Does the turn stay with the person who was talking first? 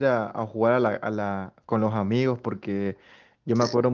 Yes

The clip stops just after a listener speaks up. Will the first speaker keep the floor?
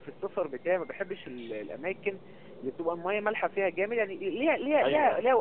Yes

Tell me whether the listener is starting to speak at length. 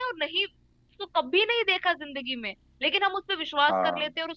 No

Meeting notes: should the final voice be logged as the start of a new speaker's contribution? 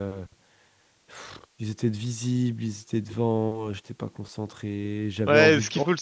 Yes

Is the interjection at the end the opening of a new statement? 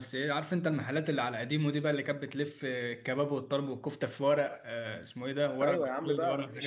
Yes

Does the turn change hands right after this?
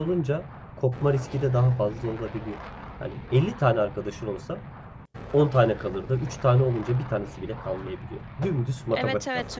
Yes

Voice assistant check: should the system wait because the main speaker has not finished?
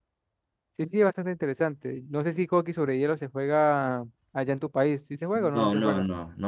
No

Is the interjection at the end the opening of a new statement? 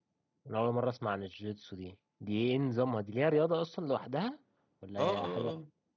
Yes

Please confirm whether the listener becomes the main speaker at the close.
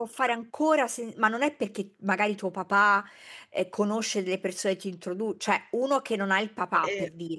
No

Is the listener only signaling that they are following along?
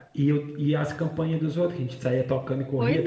No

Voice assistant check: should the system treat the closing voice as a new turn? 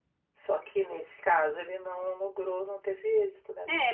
Yes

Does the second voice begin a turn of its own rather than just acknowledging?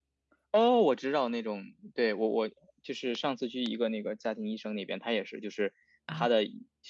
No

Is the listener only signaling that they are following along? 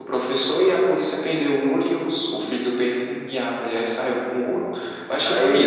No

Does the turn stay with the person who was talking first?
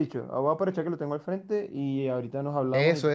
No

